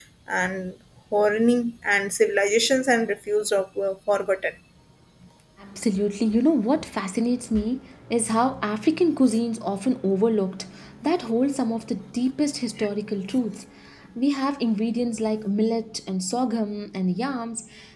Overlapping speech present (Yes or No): No